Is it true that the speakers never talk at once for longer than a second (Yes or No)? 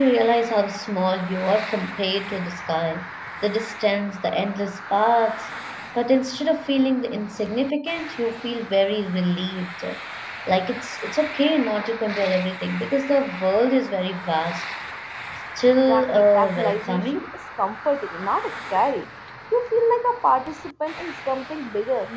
No